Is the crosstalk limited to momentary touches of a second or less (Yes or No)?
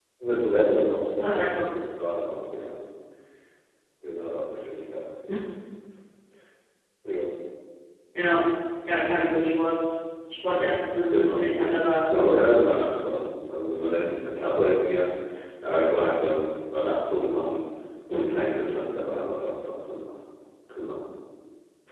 No